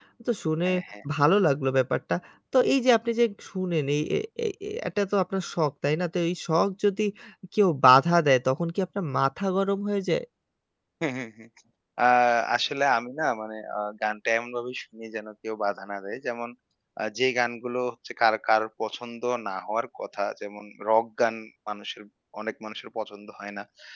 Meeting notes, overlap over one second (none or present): none